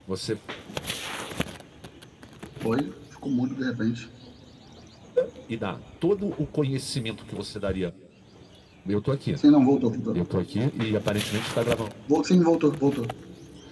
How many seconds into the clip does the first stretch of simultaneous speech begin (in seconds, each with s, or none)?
none